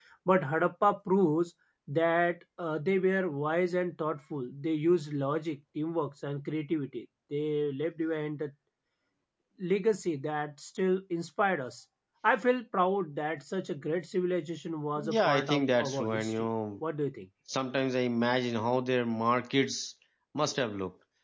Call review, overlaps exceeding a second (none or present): present